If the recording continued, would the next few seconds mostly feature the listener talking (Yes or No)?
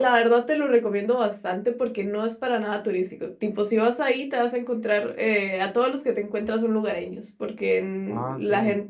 No